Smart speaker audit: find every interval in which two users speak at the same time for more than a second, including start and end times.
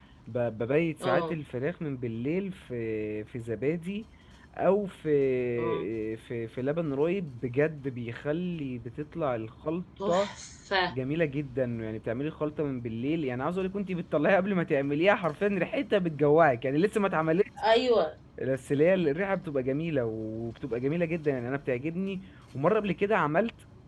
none

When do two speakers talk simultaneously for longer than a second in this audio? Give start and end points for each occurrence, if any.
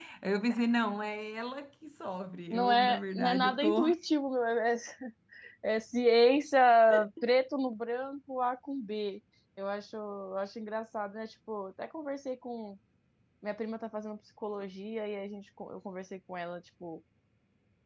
2.5-3.9

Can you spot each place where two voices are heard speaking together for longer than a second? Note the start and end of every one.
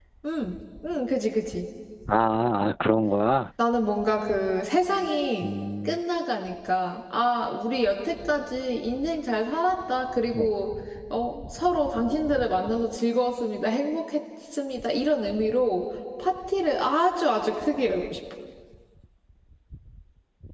none

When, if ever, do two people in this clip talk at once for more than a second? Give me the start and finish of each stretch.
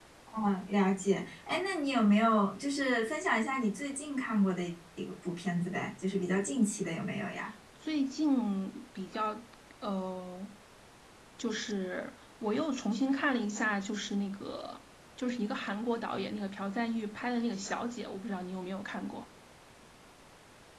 none

